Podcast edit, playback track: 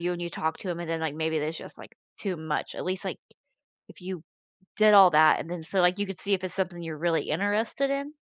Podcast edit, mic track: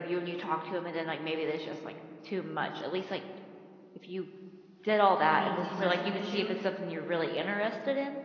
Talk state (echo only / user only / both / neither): both